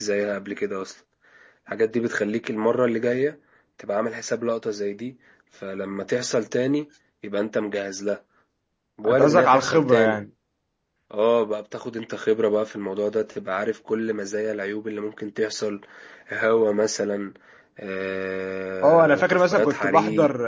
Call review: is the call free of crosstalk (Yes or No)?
No